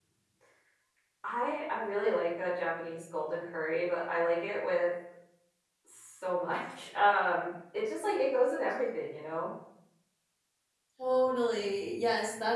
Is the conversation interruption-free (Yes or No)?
Yes